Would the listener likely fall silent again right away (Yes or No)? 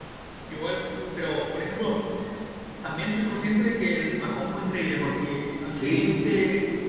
Yes